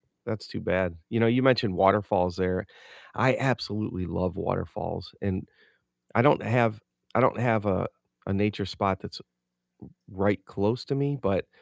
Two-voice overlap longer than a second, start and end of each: none

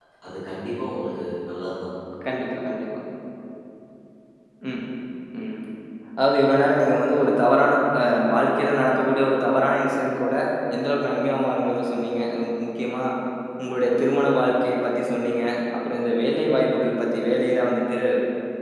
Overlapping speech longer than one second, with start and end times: none

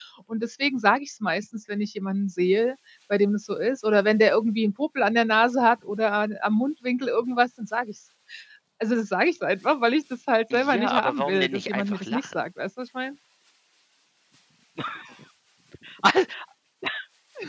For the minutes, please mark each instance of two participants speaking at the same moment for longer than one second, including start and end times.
10.5-12.4

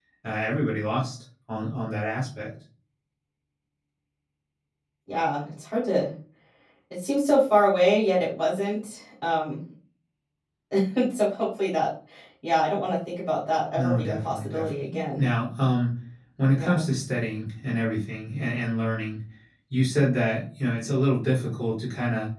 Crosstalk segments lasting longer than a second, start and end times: 13.8-15.2

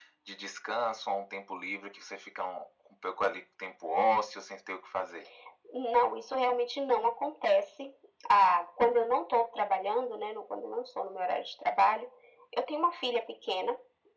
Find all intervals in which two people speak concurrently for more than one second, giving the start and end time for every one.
none

